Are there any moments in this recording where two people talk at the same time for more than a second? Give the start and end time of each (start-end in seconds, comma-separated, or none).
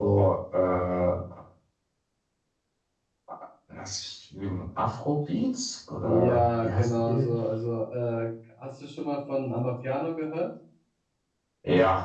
6.0-7.3